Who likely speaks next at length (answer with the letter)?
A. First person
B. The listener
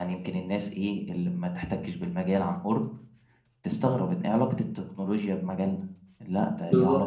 B